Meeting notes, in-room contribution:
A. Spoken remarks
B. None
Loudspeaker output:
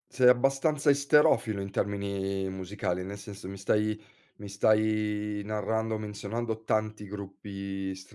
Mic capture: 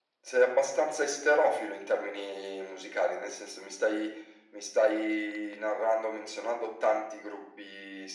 B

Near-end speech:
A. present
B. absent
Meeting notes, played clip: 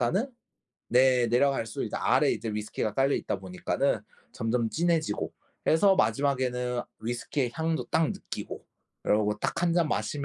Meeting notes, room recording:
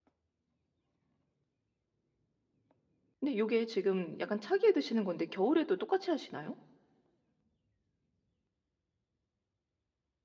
A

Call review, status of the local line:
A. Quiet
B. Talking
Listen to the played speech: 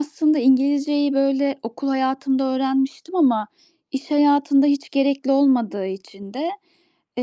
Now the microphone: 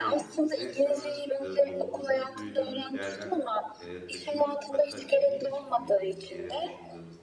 B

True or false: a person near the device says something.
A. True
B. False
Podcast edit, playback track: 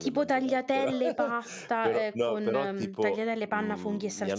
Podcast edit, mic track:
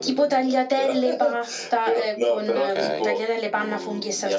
A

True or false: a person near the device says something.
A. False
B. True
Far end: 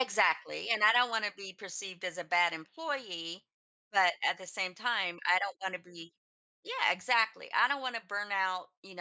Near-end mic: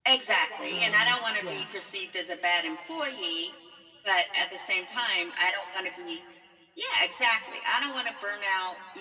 B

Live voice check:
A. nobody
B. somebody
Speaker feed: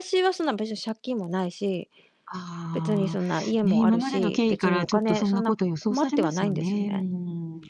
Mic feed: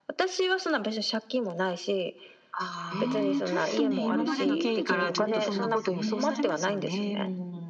B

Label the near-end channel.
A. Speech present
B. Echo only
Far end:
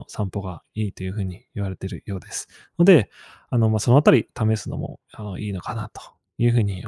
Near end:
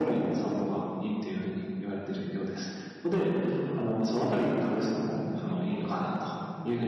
A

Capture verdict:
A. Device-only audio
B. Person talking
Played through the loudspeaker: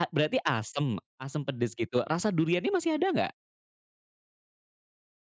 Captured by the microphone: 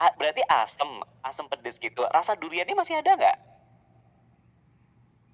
A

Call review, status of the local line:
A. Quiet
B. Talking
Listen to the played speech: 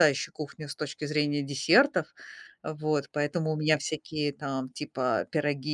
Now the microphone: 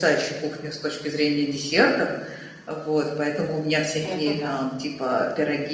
B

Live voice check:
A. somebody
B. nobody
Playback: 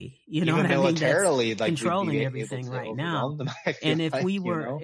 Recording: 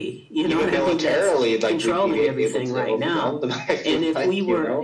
B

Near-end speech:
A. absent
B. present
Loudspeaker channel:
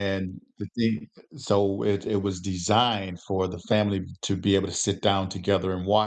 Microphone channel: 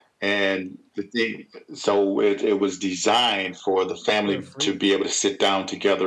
B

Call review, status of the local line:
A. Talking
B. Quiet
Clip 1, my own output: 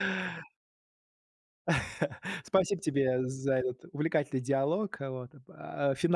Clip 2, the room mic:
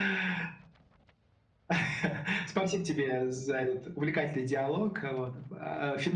B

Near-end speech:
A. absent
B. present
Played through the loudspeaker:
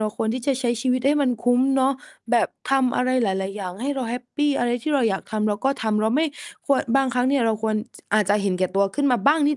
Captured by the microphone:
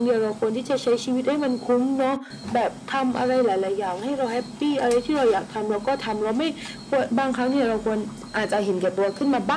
A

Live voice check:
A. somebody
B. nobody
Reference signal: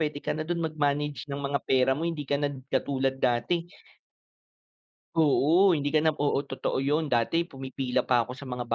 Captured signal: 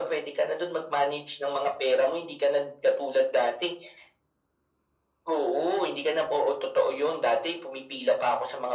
B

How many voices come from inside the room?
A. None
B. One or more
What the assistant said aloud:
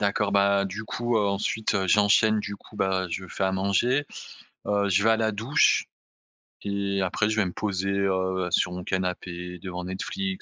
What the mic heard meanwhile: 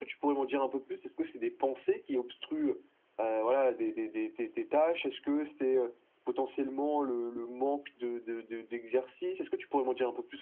B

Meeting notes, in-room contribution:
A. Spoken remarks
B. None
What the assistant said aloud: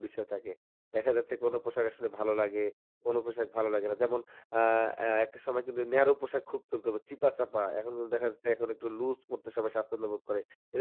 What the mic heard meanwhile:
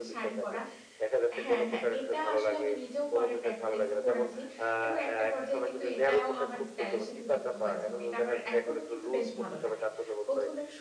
A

